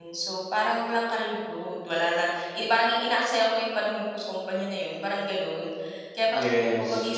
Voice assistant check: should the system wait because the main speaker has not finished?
Yes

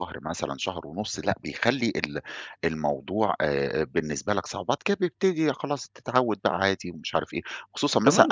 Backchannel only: No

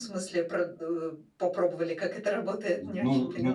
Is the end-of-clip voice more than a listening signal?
Yes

